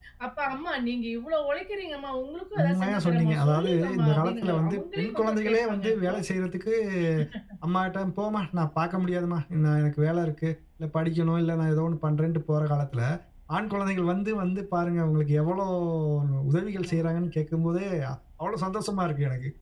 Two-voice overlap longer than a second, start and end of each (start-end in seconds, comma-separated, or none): 2.6-6.2